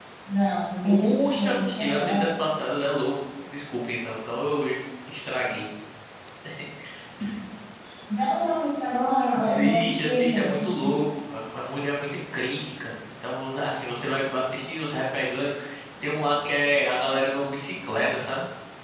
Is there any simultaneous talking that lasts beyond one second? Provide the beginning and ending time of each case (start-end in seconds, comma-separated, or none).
0.9-2.3, 9.3-10.9